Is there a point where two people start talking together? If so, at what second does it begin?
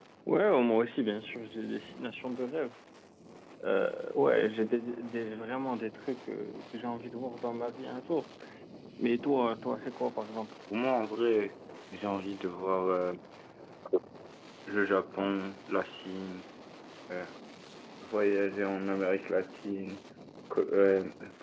none

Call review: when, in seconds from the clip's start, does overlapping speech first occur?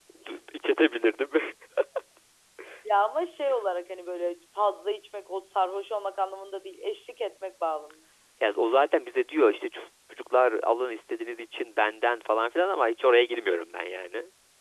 none

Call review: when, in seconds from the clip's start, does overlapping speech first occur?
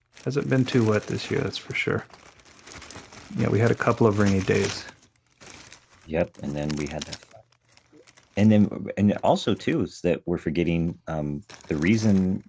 none

